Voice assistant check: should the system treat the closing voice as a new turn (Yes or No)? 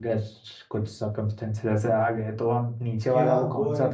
Yes